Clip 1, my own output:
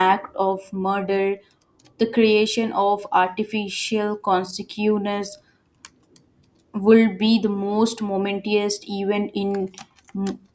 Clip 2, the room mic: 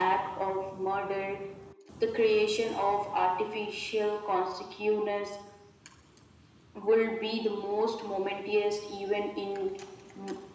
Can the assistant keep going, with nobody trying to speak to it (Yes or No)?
Yes